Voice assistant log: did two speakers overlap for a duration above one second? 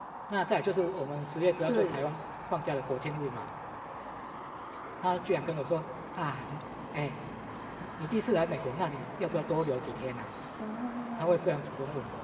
No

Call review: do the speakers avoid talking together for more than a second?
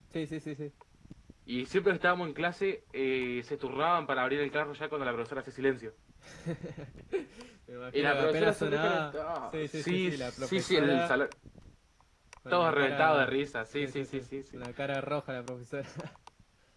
No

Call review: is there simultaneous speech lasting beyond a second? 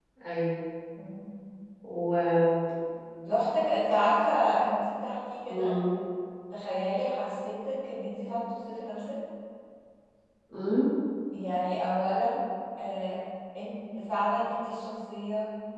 No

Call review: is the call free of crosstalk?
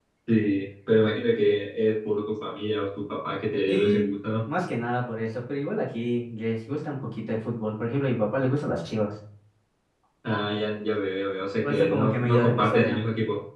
No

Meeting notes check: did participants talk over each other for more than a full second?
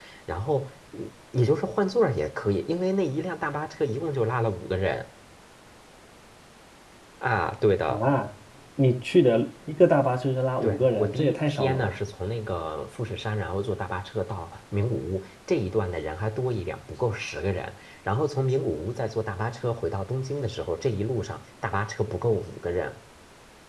Yes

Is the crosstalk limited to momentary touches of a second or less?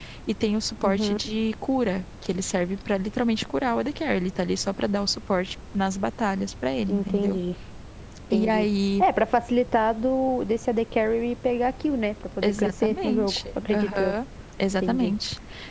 No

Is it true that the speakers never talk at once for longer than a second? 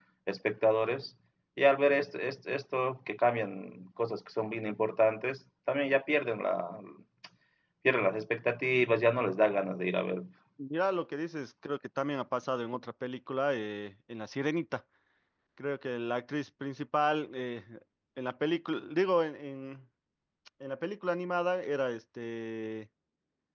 Yes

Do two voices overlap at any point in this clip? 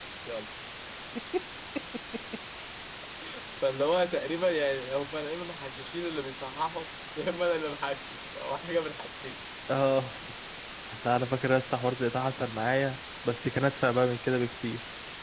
No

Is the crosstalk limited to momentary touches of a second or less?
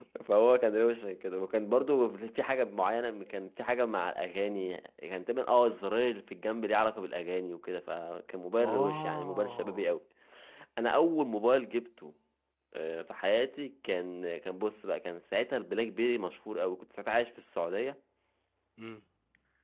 No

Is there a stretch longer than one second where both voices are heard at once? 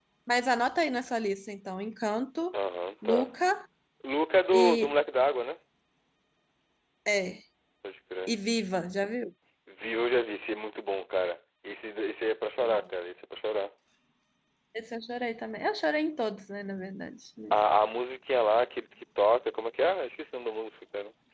No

